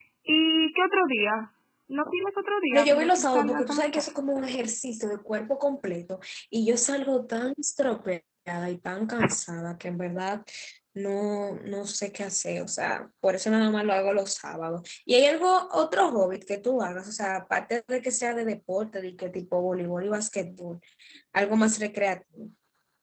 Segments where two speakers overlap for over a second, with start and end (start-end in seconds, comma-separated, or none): 2.7-4.0